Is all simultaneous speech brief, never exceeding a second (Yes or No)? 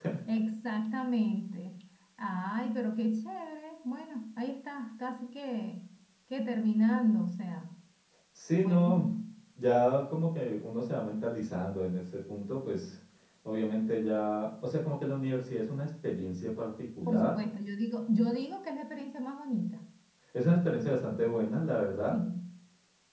Yes